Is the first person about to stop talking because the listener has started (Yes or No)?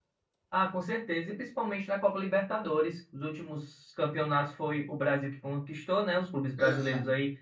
No